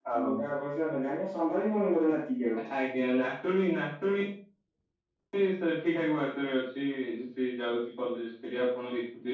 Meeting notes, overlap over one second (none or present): none